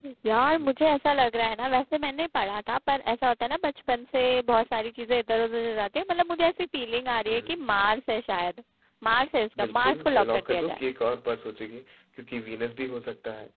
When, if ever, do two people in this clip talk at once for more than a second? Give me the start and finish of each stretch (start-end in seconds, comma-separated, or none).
9.6-10.8